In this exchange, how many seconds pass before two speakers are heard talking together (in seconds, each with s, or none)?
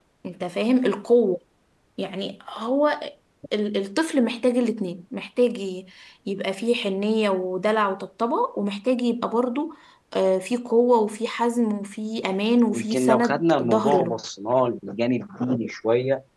12.7 s